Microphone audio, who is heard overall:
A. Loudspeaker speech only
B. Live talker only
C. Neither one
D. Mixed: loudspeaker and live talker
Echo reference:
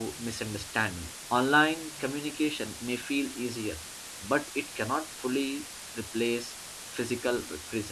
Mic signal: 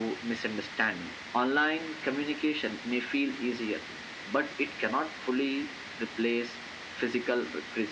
A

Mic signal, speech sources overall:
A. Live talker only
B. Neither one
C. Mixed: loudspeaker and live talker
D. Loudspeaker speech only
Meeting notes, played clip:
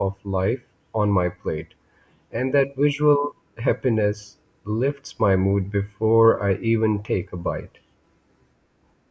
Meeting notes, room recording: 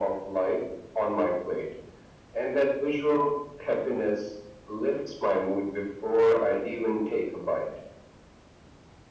D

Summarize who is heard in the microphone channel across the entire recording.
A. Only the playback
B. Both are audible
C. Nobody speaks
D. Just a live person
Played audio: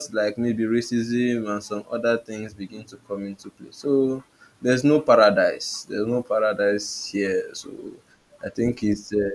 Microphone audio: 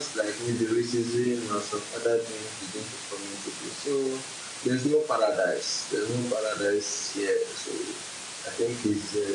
A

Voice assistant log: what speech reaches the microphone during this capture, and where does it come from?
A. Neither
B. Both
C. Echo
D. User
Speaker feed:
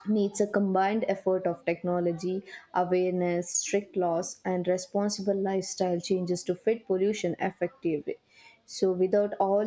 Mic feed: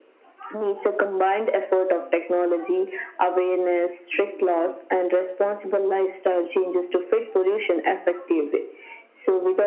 C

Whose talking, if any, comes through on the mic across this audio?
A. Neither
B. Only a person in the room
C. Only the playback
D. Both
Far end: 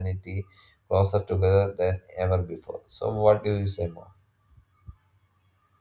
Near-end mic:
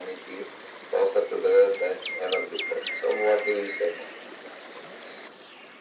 C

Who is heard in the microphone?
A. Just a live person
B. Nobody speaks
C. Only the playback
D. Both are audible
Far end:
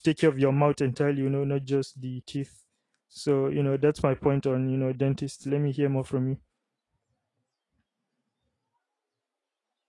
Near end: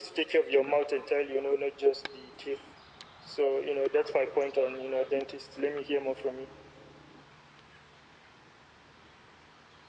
C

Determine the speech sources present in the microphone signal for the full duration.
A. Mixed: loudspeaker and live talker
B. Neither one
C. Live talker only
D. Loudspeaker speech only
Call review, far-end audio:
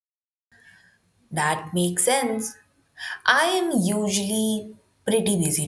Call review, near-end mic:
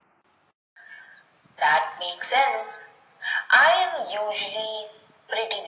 D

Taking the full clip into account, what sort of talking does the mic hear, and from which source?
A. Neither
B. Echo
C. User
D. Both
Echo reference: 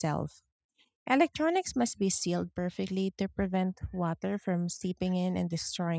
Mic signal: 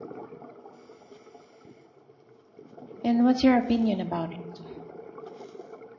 C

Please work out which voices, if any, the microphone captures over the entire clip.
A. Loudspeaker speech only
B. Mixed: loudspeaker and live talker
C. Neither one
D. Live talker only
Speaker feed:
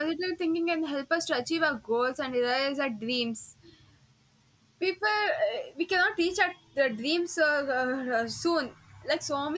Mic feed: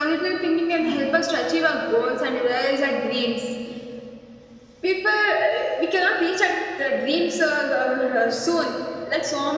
B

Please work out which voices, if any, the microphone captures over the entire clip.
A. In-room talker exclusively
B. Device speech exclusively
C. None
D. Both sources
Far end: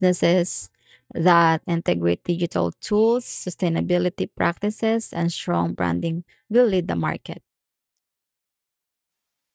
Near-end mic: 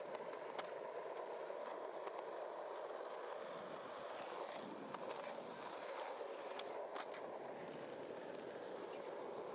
C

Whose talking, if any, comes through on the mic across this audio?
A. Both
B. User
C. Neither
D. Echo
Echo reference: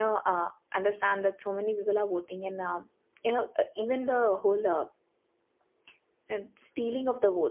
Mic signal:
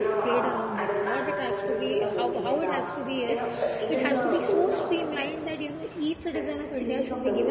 A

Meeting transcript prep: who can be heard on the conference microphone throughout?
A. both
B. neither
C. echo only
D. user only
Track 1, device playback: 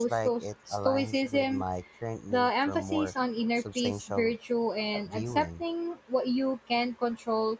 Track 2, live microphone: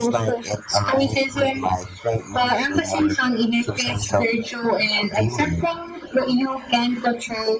C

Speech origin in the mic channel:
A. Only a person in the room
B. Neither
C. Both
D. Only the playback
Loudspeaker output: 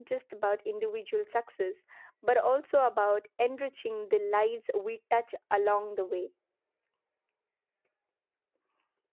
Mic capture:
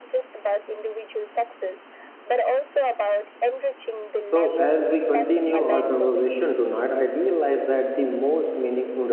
C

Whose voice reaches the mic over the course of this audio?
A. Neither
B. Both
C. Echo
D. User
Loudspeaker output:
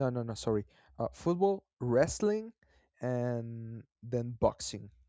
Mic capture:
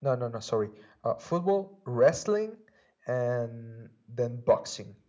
C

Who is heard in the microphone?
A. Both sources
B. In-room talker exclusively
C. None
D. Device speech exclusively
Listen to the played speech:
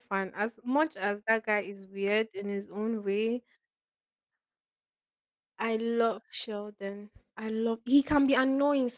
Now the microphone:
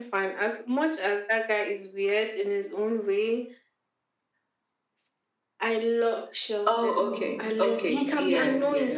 A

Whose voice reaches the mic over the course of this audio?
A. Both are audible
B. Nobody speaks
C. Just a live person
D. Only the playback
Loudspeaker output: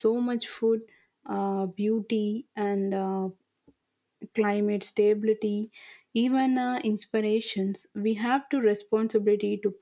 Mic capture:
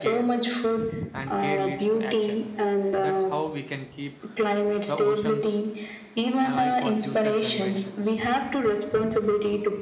A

